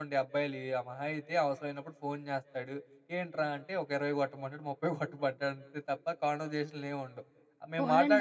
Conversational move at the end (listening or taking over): taking over